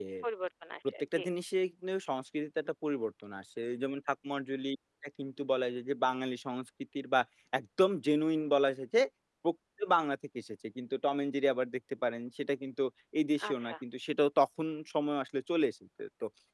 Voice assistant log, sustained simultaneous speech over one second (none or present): none